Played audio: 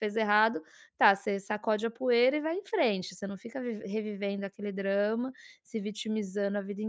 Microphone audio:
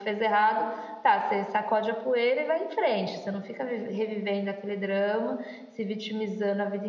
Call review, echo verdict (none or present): present